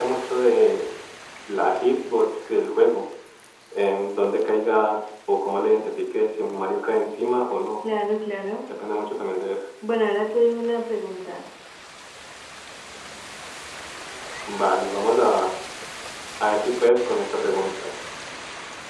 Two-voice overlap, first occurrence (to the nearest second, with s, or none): none